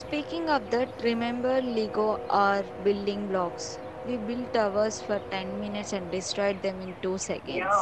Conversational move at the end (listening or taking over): taking over